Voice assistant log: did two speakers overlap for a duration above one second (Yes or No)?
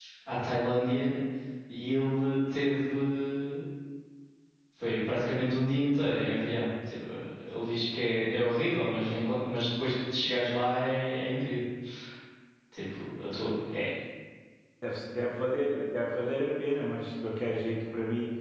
No